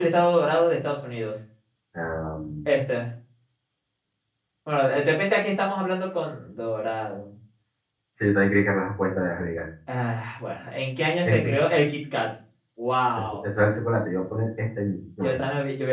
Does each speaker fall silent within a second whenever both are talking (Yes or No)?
Yes